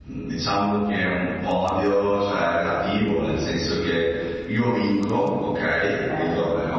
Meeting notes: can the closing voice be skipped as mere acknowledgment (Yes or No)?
Yes